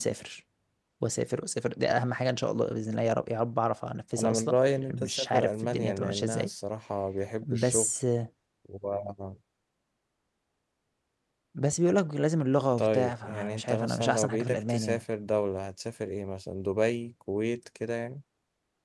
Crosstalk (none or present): present